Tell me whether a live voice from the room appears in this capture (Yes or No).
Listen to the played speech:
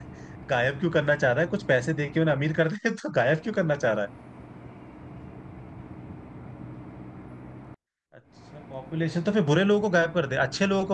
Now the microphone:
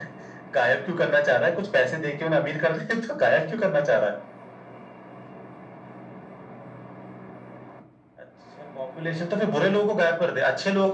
No